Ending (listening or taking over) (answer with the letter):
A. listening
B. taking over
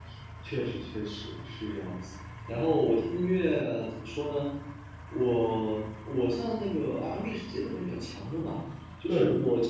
A